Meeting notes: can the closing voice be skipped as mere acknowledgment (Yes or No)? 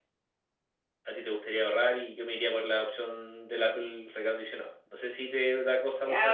No